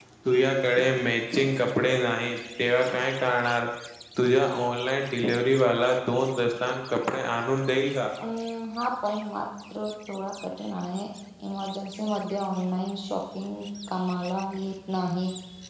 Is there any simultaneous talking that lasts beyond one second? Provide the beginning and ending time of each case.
none

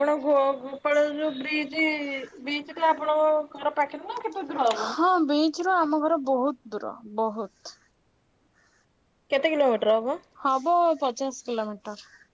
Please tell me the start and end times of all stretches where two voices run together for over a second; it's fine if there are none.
none

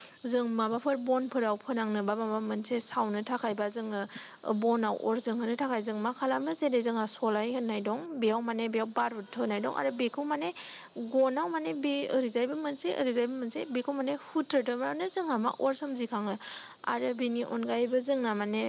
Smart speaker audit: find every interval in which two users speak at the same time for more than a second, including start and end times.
none

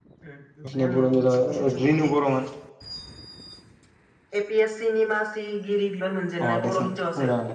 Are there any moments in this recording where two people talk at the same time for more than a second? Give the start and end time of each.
0.7-2.1

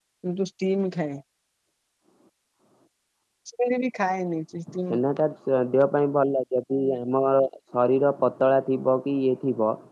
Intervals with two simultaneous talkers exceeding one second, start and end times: none

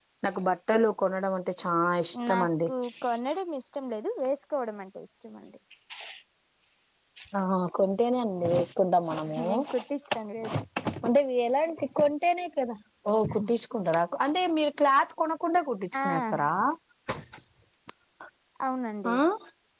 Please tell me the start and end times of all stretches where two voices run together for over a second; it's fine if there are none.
none

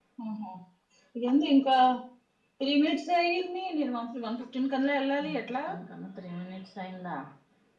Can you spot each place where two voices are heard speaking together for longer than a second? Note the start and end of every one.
none

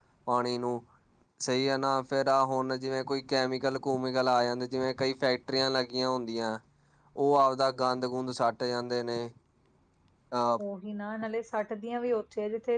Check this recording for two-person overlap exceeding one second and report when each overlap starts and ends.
none

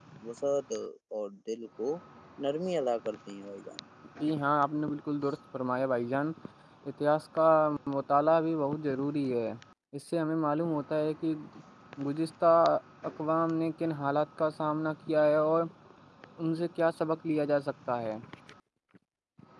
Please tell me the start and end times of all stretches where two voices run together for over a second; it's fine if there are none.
none

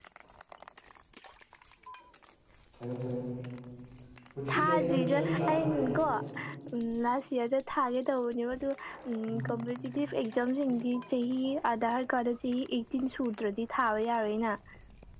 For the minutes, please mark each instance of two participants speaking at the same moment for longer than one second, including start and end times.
4.5-5.8

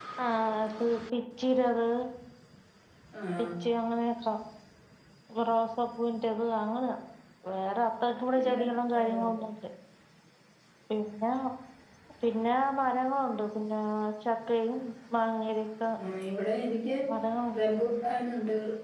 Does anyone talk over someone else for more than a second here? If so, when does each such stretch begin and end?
none

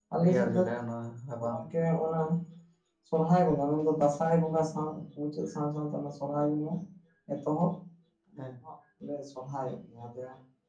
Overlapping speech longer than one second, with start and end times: none

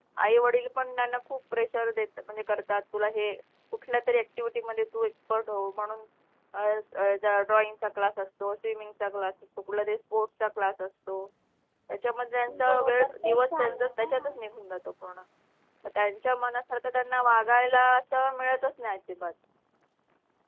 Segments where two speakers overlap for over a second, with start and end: 12.6-14.4

